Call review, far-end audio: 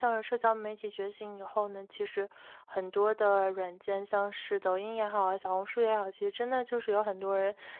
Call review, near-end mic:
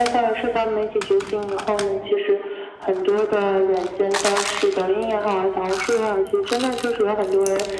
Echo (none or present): present